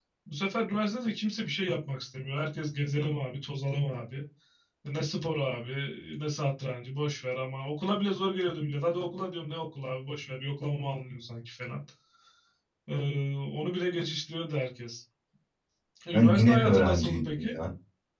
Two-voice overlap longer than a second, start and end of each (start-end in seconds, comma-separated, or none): 16.1-17.6